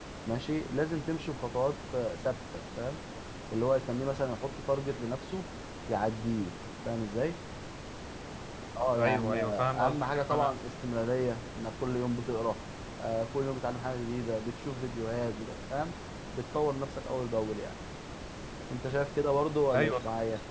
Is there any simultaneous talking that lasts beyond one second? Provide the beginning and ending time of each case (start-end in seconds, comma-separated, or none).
9.0-10.5